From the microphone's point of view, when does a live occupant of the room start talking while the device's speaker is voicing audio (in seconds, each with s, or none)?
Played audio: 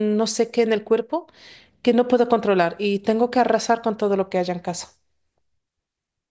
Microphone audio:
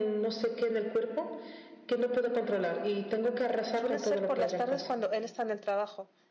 3.7 s